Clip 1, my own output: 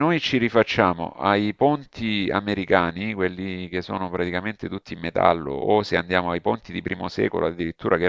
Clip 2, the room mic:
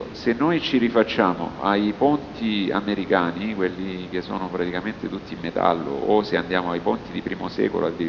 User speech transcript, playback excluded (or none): none